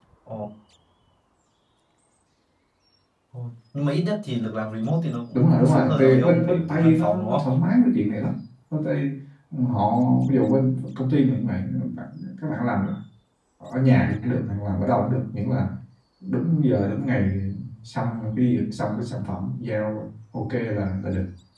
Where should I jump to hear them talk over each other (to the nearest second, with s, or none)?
5 s